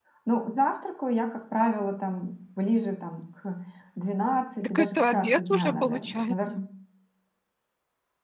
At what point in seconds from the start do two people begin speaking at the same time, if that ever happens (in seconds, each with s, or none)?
4.6 s